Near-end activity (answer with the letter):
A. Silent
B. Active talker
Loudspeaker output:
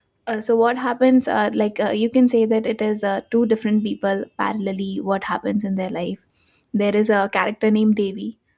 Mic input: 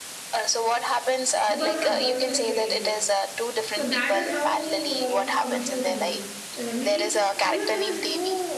B